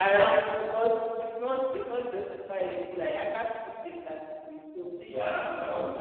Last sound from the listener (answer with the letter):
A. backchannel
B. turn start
B